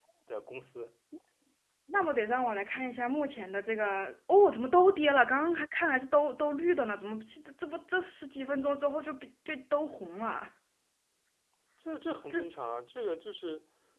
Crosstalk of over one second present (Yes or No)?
No